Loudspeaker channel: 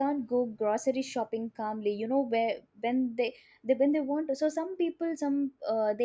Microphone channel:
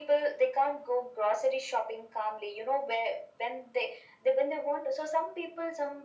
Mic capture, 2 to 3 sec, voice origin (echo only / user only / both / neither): echo only